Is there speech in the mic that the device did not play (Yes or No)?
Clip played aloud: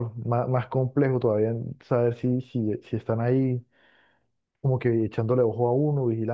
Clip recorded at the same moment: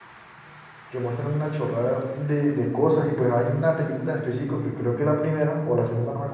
Yes